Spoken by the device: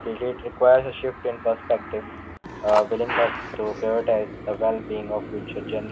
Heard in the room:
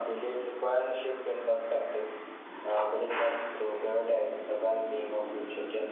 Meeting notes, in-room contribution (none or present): none